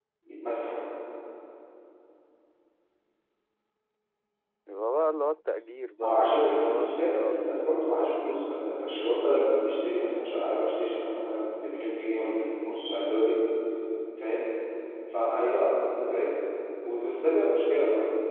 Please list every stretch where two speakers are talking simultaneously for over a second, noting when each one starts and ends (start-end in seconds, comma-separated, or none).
6.0-8.3